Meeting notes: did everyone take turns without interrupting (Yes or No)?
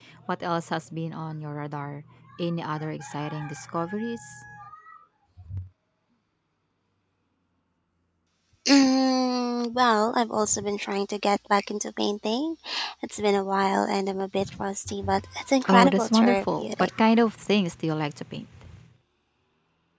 No